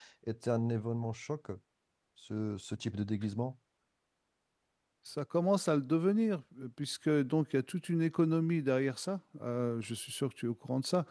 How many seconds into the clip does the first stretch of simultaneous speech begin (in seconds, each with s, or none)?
none